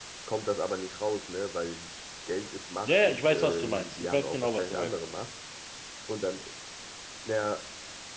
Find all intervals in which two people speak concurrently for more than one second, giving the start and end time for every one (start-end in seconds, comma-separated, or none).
2.9-4.9